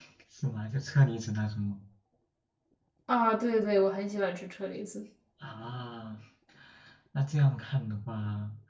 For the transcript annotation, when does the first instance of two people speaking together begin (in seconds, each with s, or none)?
none